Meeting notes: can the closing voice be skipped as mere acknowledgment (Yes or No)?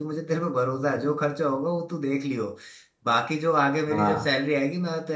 Yes